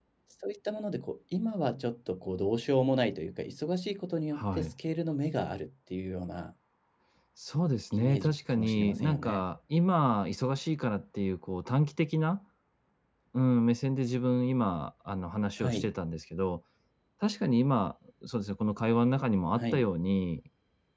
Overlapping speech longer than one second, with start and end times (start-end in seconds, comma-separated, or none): 7.9-9.4